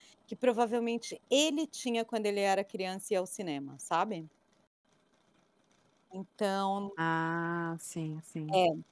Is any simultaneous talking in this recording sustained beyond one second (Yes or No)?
No